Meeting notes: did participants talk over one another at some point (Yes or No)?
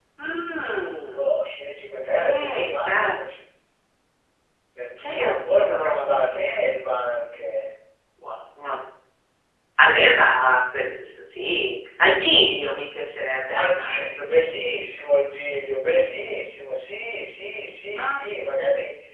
Yes